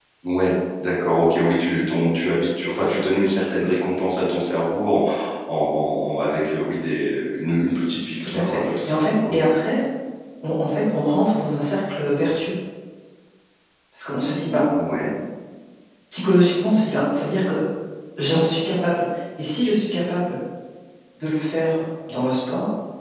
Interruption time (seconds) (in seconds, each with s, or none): 8.2 s